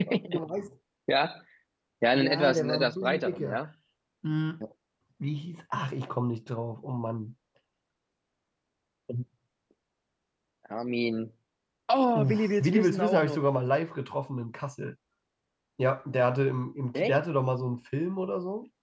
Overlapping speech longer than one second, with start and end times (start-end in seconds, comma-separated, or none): 2.1-3.6, 12.2-13.4